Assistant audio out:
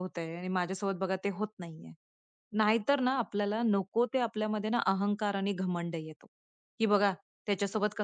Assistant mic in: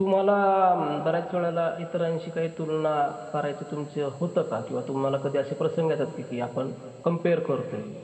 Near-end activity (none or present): present